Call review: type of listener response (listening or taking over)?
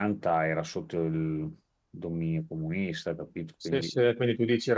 taking over